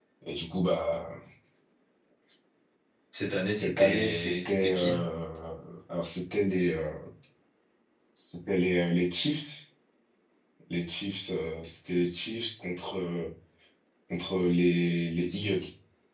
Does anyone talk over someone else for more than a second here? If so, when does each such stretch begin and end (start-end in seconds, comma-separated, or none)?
3.5-4.9